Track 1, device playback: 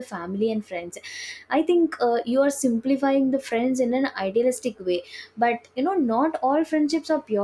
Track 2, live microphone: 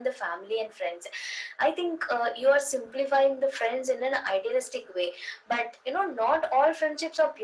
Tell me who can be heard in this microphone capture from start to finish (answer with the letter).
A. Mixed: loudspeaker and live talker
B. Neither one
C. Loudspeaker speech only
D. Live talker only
C